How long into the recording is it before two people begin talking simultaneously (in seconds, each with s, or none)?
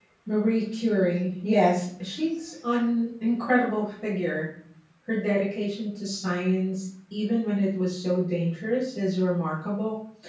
none